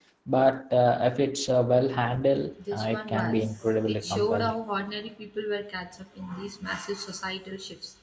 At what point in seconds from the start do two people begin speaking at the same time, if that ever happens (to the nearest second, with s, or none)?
3 s